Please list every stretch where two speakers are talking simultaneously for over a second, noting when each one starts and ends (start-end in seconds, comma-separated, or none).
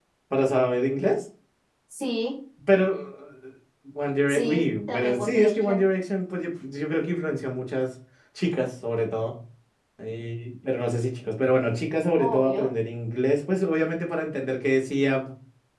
4.3-5.8